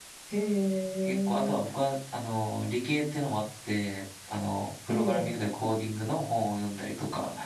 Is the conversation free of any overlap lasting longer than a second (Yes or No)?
Yes